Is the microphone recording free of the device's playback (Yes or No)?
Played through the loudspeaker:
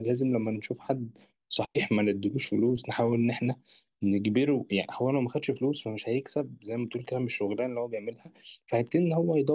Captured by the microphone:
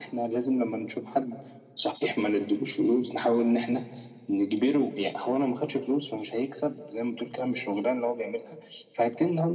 No